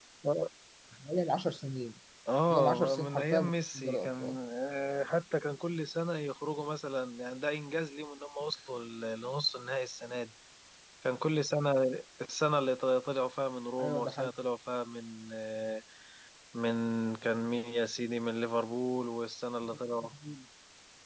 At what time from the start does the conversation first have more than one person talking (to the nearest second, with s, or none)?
3 s